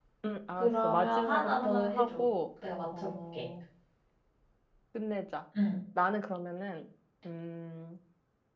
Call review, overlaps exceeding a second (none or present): present